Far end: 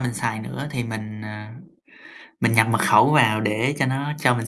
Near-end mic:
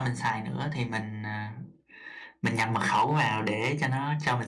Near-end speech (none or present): none